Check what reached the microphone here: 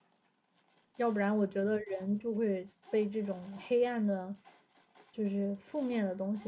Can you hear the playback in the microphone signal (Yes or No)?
No